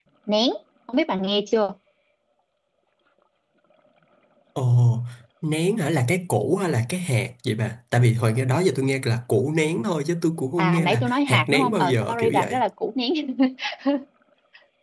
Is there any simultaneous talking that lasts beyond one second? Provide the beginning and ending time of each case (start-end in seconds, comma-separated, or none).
10.6-12.6